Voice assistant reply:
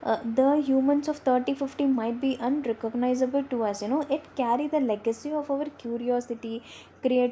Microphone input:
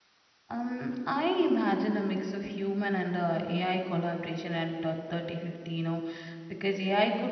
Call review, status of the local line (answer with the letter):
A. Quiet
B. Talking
B